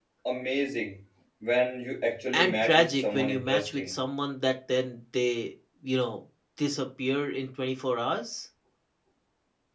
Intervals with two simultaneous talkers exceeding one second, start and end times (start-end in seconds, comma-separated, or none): 2.3-4.0